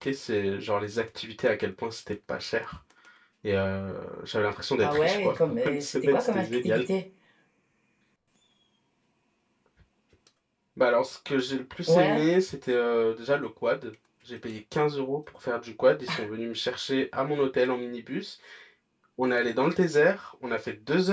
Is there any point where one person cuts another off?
Yes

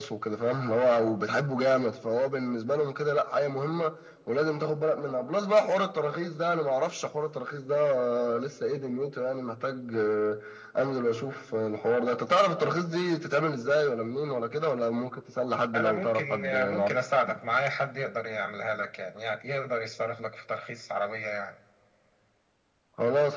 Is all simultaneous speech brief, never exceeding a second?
No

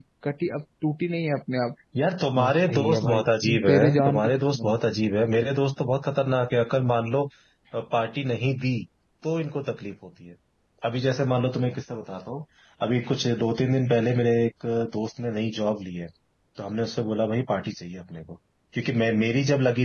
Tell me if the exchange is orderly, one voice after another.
No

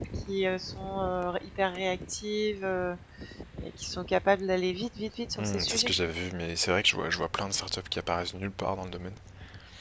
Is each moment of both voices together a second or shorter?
Yes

